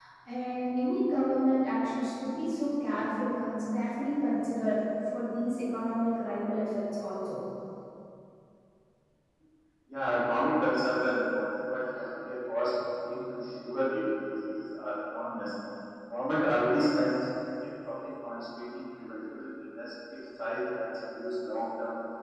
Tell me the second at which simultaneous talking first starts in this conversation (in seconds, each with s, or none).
none